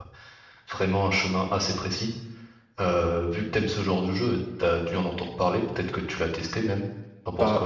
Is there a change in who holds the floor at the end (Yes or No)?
Yes